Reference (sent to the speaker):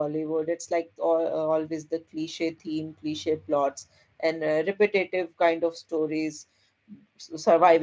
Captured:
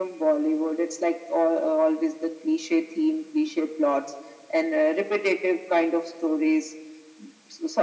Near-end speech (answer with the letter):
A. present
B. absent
B